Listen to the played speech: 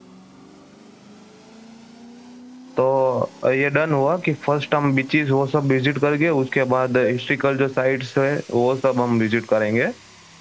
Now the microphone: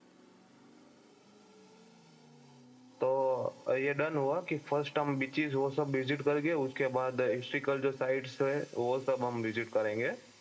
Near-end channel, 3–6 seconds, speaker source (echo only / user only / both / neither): echo only